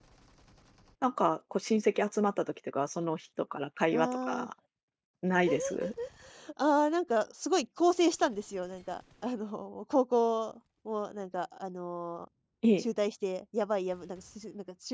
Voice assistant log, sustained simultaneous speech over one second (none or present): none